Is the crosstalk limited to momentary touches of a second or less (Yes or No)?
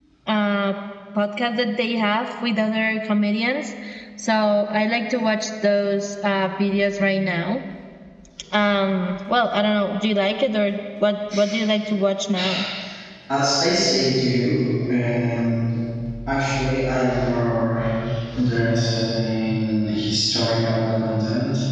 Yes